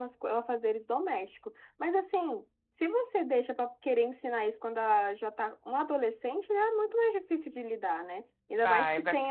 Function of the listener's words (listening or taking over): listening